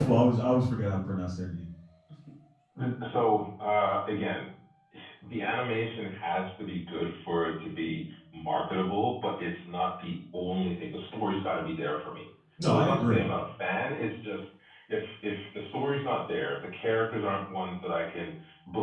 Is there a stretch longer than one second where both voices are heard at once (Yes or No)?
No